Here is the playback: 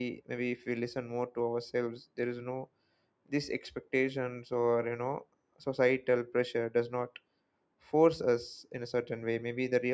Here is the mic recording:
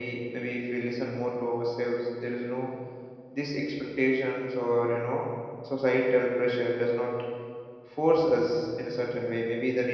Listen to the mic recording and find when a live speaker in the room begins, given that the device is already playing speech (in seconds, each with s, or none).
none